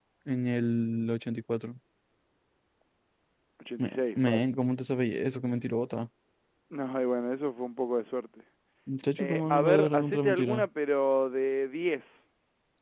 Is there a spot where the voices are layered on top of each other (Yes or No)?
Yes